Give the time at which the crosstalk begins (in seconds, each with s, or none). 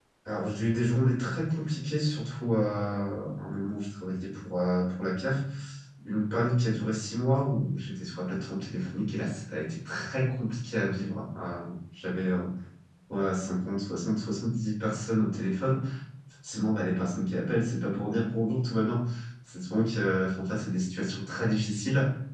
none